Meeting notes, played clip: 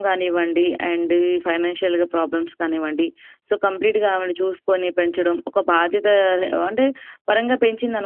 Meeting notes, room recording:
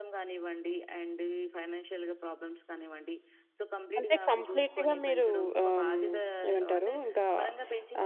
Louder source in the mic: user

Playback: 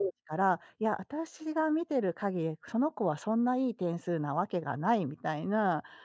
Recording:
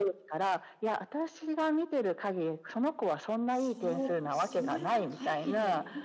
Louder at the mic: echo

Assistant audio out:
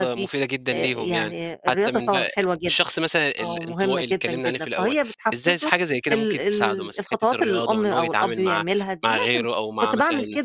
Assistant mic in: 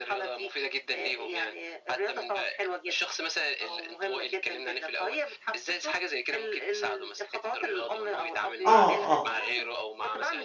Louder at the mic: user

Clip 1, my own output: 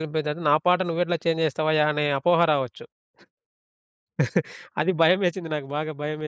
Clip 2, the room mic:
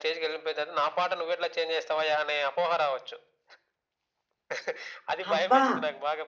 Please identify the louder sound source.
user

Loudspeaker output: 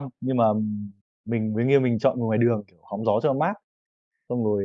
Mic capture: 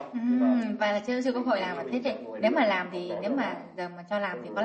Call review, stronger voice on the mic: user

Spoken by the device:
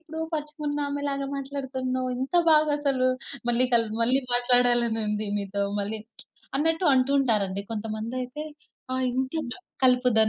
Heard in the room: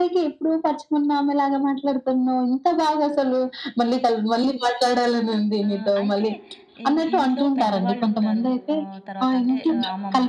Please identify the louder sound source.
echo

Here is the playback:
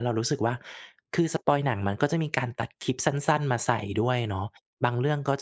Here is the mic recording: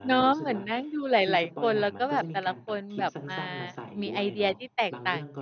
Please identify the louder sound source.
user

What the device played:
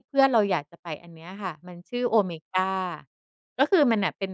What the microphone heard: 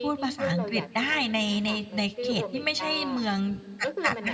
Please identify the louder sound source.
user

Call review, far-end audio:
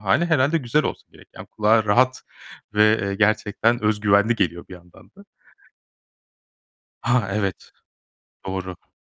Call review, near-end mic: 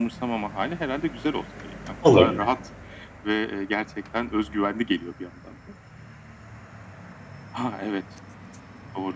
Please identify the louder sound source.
user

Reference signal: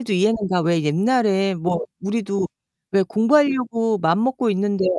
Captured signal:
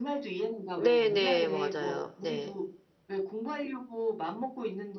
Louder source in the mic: user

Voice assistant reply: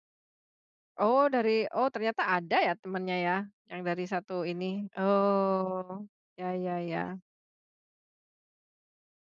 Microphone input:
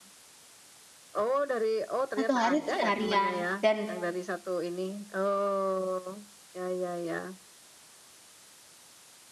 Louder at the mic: user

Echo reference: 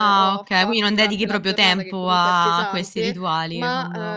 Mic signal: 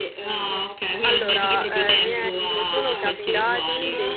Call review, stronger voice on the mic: echo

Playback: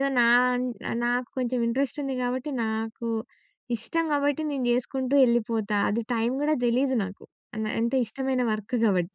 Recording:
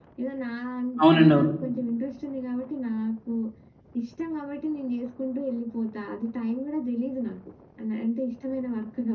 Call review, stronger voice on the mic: user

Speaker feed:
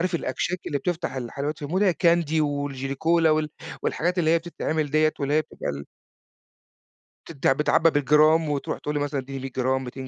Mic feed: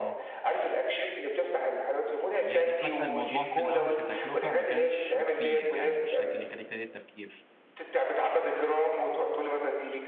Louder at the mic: echo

